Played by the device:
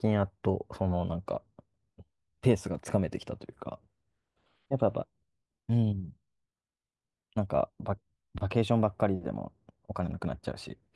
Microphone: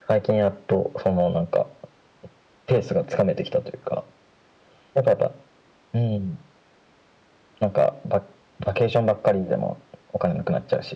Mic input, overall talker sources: echo only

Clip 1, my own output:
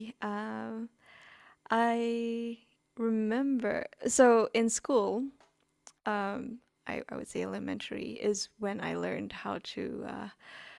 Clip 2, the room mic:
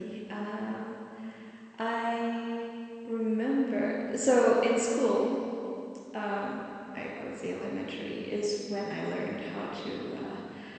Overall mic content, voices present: echo only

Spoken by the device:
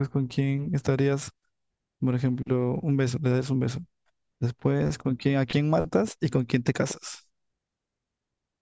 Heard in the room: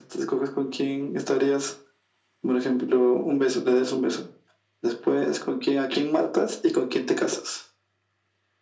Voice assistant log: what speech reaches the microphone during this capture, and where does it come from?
echo only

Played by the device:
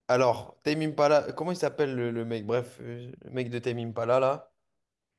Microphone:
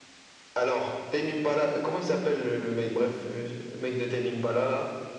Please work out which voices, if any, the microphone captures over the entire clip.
echo only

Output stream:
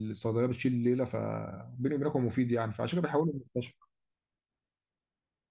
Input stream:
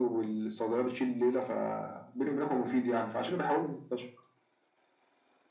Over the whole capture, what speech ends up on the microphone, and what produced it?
echo only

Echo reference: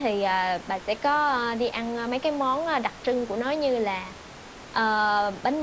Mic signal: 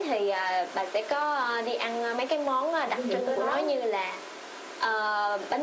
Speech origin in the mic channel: both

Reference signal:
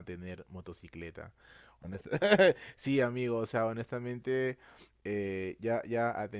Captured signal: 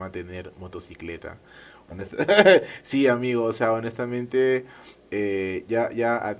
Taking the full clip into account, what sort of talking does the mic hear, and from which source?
echo only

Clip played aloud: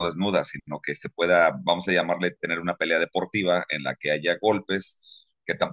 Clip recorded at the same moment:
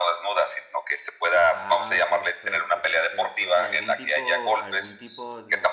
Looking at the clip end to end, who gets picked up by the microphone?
both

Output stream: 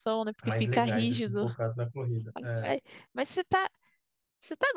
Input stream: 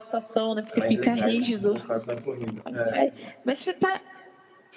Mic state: echo only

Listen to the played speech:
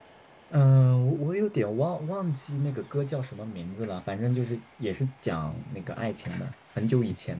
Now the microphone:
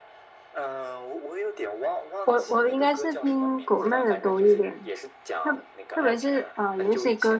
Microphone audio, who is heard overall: both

